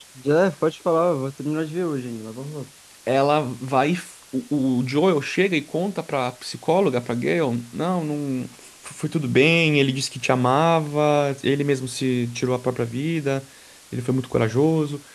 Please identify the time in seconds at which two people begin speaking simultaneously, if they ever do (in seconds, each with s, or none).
none